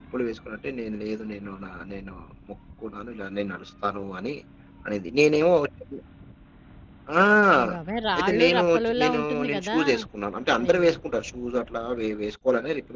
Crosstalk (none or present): present